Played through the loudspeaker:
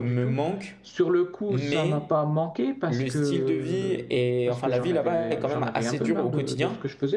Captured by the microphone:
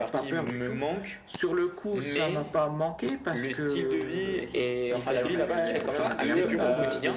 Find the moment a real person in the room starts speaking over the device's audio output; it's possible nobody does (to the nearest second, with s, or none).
4 s